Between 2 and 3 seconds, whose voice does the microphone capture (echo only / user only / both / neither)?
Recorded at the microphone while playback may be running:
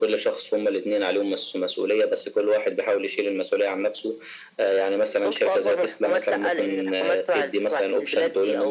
echo only